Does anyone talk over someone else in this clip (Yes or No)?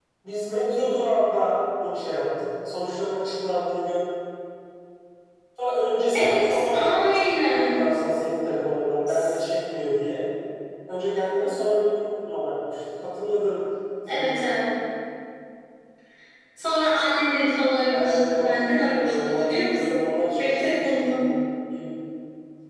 Yes